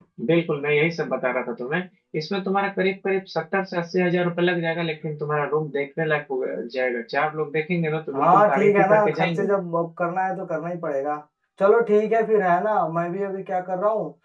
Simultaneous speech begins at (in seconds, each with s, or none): 8.1 s